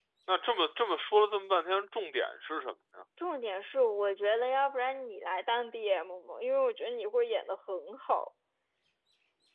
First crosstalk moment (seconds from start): none

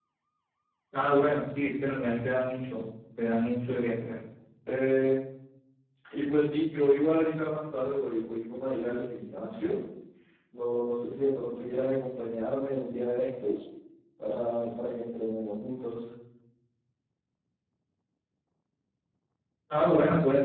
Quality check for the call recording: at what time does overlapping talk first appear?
none

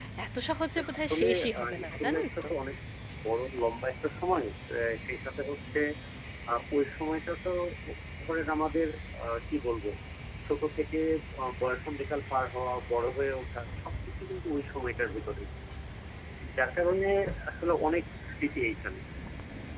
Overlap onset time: 0.8 s

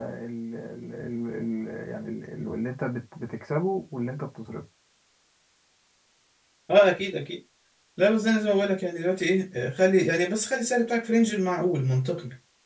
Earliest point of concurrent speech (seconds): none

